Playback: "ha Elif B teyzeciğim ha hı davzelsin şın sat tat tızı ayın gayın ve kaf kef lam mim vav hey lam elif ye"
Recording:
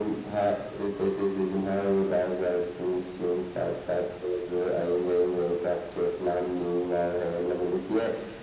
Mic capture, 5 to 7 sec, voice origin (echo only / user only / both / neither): echo only